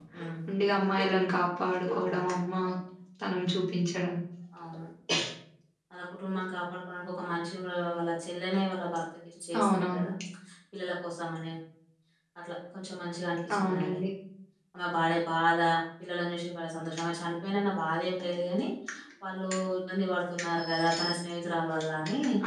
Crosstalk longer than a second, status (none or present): none